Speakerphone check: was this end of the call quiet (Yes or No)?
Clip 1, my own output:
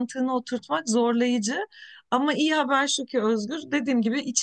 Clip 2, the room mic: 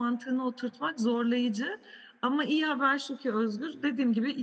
Yes